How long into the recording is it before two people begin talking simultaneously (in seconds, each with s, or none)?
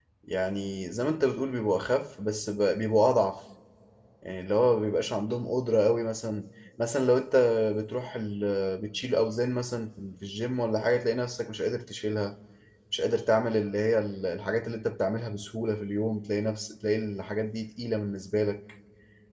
none